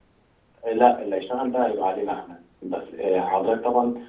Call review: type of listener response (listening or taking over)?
listening